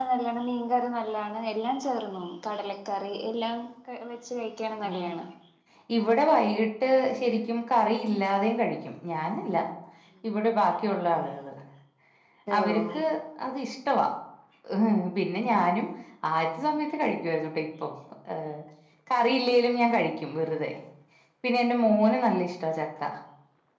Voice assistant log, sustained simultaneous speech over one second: none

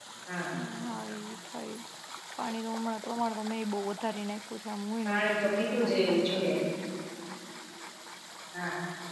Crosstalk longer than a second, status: present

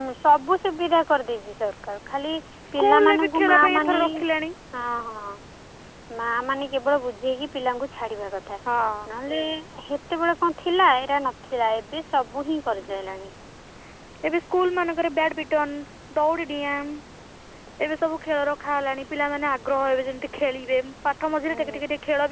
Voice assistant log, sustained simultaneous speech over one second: present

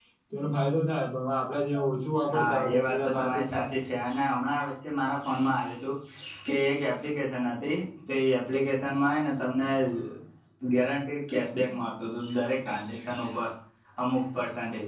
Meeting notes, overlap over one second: present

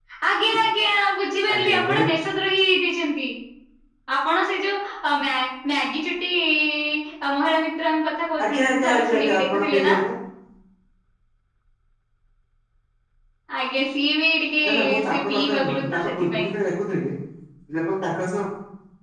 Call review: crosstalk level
present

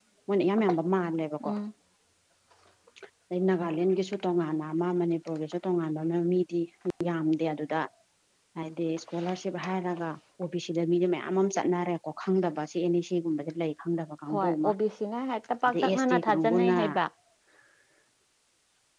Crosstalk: present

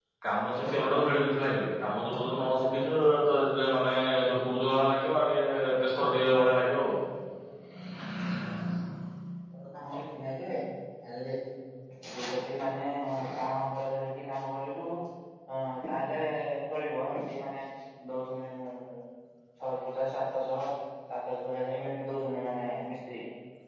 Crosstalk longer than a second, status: none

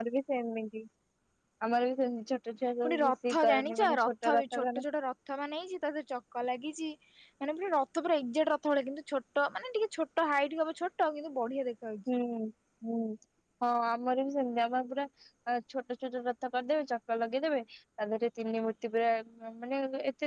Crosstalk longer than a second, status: present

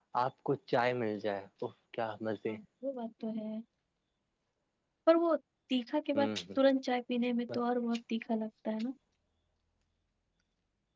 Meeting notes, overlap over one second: none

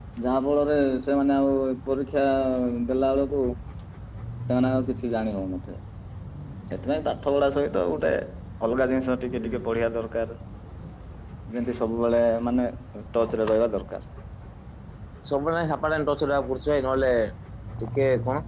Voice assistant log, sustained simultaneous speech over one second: none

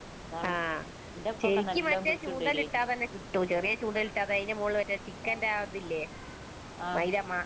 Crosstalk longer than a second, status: present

